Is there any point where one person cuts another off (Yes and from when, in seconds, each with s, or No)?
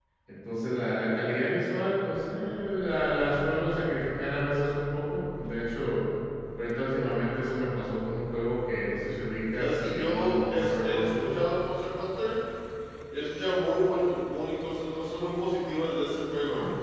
Yes, from 9.6 s